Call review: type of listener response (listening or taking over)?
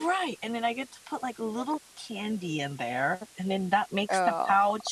listening